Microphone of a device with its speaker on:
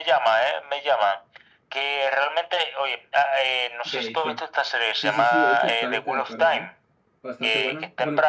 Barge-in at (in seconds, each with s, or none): 3.8 s